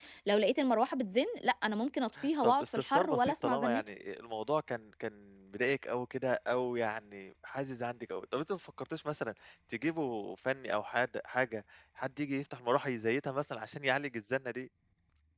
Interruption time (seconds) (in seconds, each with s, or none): 2.4 s